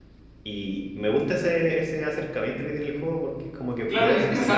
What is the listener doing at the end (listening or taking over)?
taking over